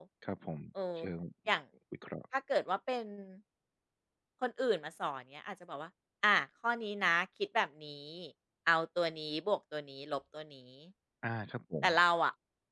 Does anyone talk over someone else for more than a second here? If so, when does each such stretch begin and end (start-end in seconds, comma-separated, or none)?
none